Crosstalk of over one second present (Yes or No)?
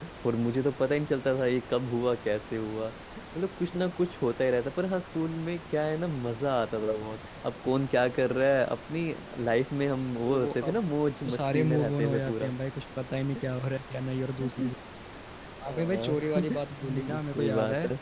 Yes